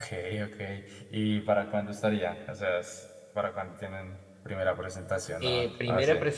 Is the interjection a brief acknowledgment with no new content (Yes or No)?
No